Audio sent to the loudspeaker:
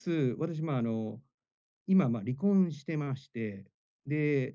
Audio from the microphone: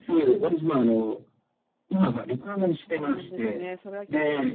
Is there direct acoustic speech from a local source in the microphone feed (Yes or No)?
Yes